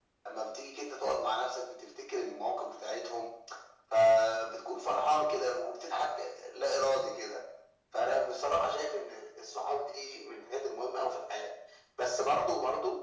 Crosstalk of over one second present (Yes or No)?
No